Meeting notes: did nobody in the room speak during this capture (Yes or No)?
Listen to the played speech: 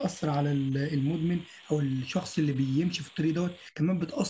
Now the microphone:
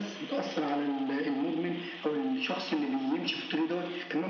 Yes